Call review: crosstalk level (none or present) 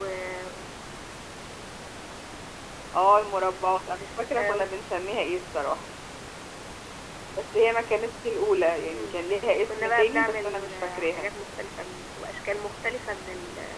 present